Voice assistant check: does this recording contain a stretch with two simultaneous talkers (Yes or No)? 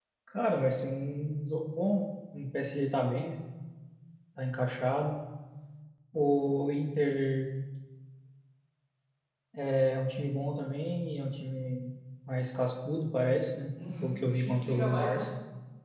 Yes